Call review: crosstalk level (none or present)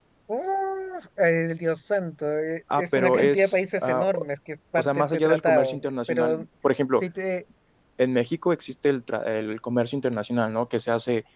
present